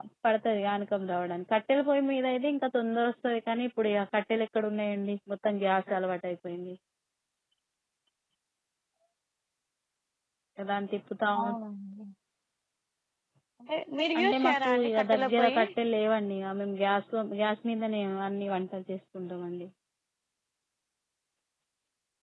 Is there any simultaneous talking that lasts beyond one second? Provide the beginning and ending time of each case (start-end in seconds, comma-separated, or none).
14.2-15.6